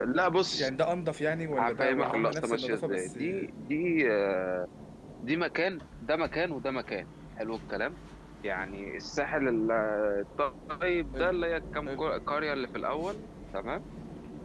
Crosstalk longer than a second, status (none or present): present